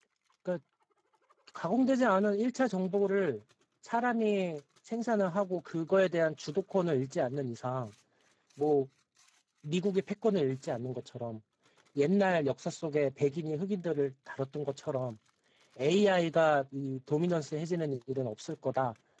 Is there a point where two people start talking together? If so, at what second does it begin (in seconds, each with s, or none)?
none